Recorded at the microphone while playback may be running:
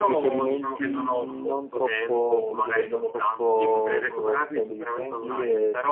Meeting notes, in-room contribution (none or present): none